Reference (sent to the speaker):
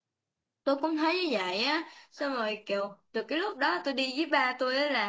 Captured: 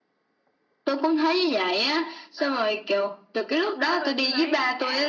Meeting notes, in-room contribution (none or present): present